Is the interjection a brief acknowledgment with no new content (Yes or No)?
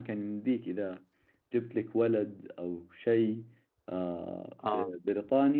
Yes